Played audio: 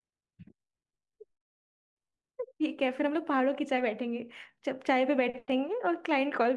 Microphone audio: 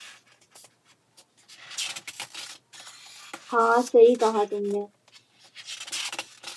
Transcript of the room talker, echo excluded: हाँ सही कहा तुमने

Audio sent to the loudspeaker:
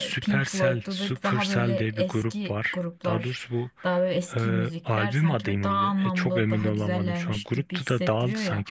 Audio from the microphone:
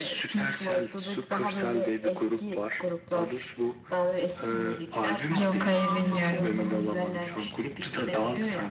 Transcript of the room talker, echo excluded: Yok hayır bilmiyorum.

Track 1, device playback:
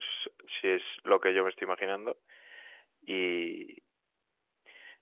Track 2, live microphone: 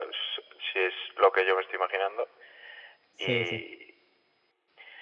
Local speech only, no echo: Sí, sí.

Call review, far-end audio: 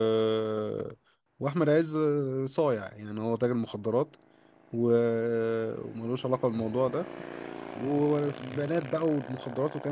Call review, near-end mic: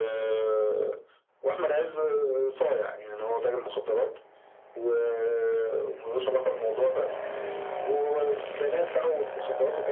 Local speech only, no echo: none

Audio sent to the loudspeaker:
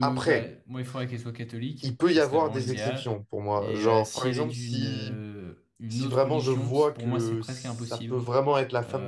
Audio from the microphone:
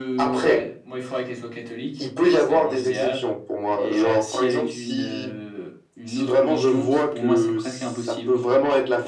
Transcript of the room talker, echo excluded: none

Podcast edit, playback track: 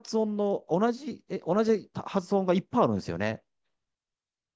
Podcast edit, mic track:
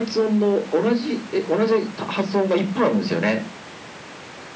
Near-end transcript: none

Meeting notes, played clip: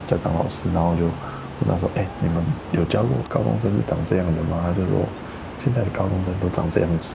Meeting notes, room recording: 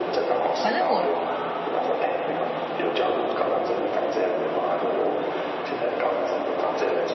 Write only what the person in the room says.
反正我

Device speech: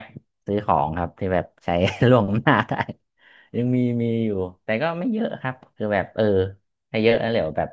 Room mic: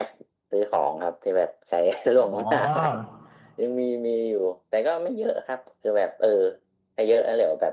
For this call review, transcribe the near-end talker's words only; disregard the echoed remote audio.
อ๋อ

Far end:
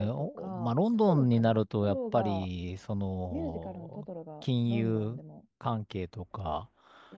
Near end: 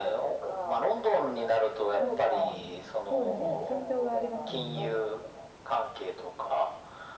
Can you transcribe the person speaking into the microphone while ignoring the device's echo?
確かに、そうですよね。身長がありますもんね。

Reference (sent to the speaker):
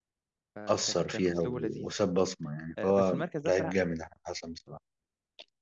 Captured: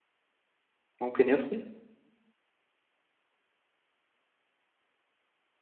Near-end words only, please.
ممكن يدخل

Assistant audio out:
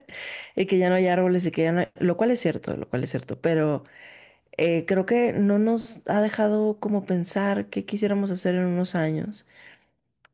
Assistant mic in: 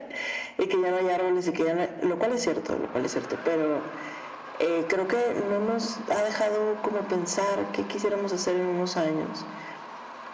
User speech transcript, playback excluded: none

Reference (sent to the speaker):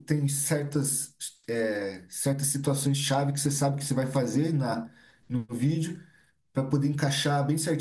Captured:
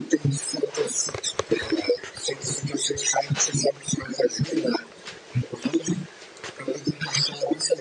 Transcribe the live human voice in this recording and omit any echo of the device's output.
none

